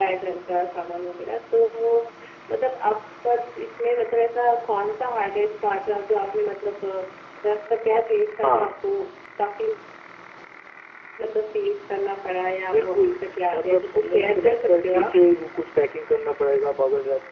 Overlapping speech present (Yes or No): Yes